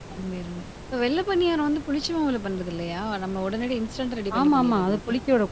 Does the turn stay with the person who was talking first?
No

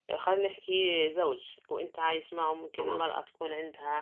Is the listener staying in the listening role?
Yes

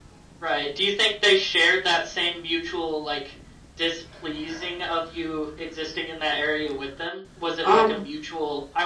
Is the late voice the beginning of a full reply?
No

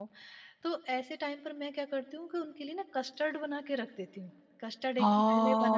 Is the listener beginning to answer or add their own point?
Yes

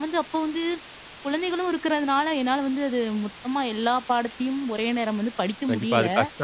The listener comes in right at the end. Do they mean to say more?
Yes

